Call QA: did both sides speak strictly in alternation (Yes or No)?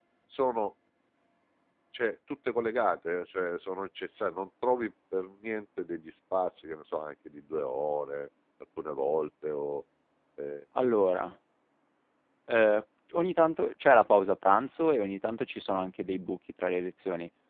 Yes